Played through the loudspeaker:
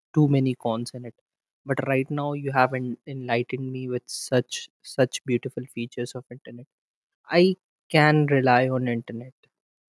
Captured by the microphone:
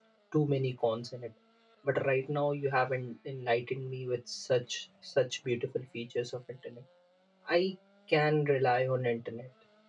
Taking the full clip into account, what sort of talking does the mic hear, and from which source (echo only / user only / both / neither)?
echo only